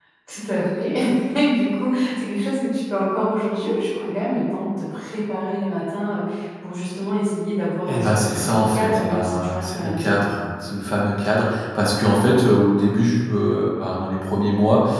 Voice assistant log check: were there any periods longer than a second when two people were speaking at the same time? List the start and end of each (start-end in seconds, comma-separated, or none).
7.9-10.2